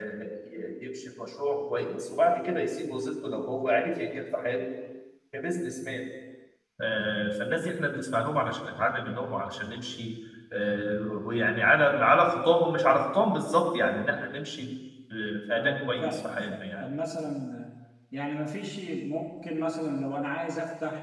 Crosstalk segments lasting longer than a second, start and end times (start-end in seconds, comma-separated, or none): 15.6-16.8